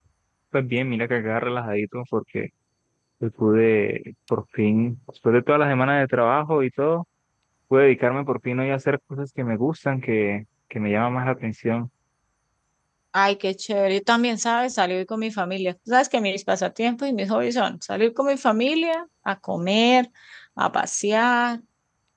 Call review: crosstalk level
none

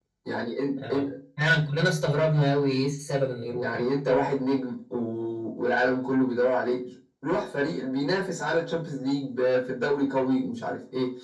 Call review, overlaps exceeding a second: none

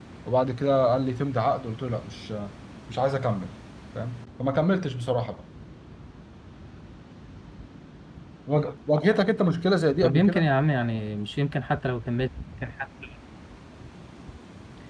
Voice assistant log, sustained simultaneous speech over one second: none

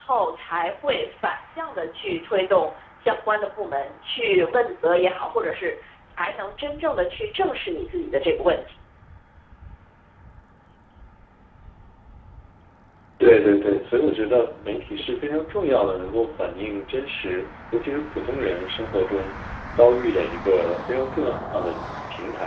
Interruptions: none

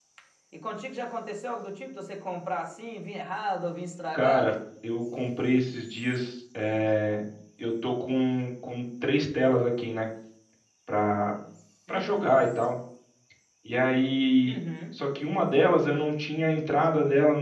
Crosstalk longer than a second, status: none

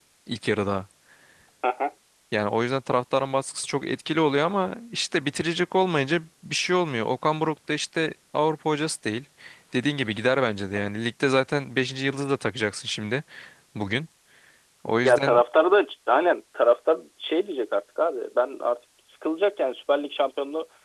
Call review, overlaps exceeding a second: none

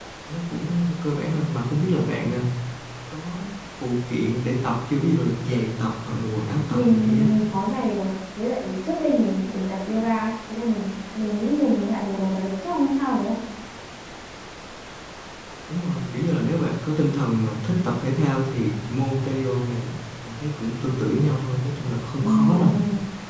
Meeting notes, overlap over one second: none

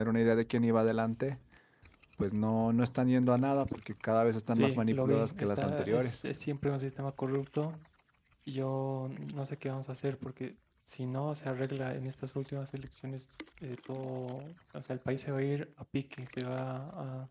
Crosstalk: present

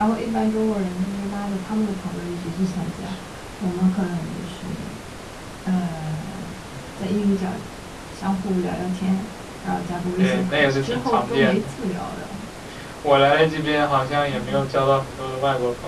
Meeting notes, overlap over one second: present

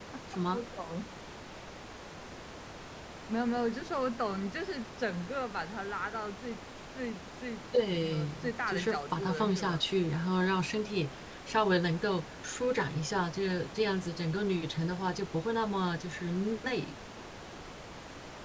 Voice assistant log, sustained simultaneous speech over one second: present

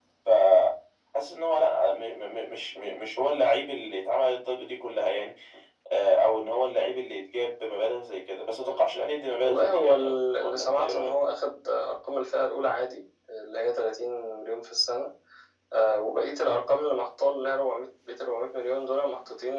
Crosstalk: present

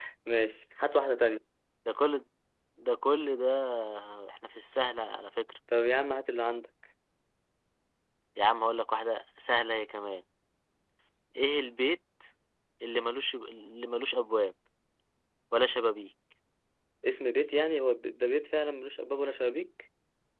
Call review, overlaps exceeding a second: none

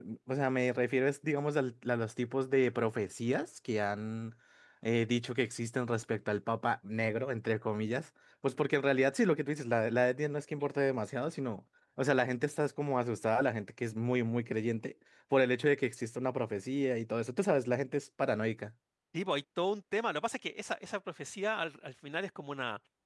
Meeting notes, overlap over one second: none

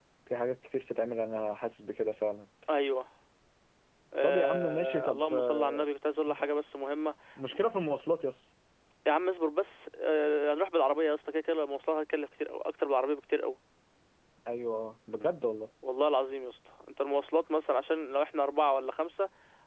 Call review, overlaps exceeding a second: present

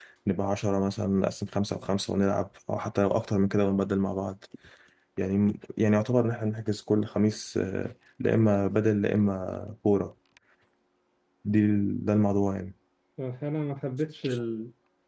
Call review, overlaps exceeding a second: none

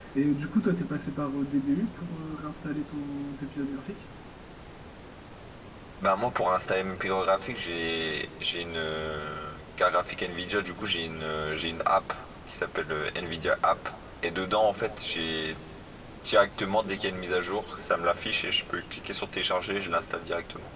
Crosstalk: none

